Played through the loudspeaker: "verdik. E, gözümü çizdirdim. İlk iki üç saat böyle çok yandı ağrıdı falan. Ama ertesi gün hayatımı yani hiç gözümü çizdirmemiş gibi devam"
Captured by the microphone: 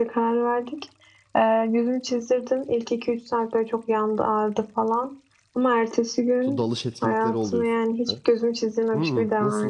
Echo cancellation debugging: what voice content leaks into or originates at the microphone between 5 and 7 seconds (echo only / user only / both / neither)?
both